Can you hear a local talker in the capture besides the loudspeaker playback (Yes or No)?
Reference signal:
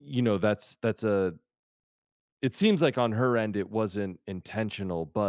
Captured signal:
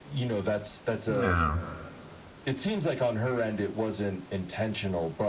Yes